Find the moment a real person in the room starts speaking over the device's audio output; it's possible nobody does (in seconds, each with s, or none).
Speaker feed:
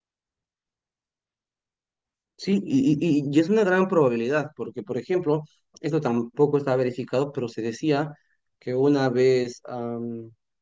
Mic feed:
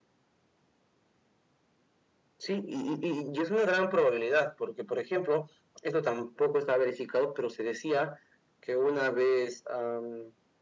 none